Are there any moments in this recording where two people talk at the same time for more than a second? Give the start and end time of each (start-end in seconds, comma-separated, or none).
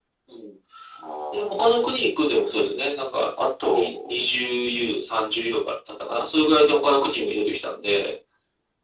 none